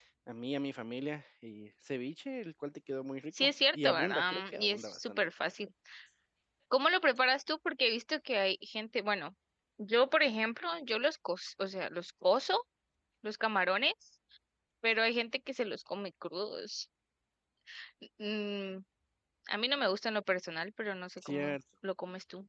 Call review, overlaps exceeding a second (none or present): present